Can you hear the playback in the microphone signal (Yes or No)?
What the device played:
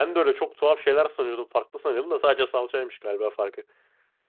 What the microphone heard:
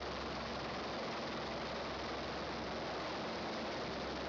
No